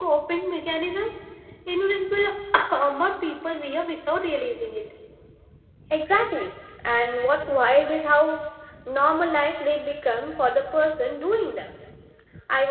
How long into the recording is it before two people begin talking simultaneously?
none

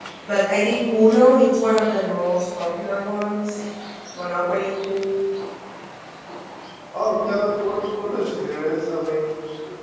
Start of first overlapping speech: none

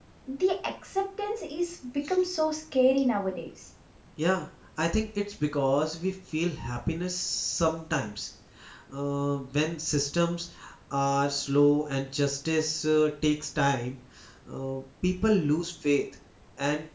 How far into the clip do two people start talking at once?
none

